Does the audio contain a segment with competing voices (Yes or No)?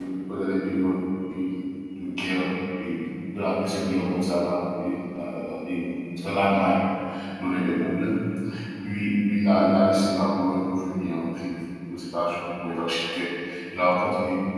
No